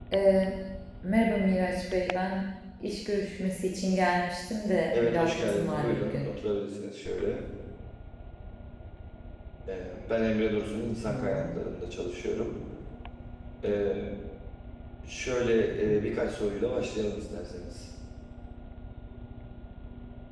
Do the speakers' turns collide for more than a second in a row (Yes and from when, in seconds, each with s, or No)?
Yes, from 4.9 s